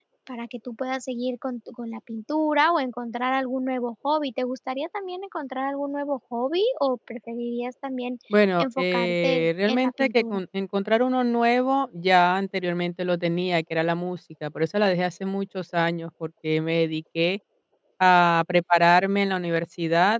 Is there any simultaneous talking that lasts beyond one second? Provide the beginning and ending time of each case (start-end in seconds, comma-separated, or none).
8.6-10.4